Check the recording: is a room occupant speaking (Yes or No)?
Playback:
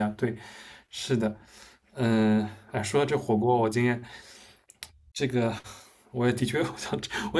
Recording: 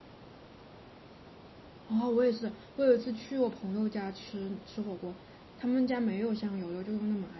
Yes